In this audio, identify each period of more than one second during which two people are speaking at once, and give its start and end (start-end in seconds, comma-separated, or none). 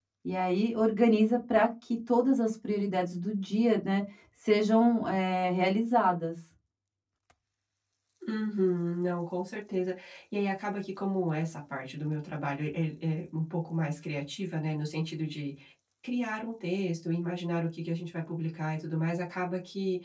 none